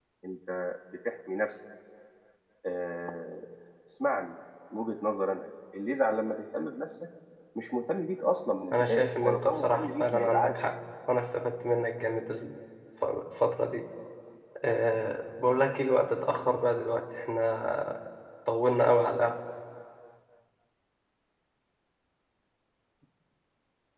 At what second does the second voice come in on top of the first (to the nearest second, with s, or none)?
9 s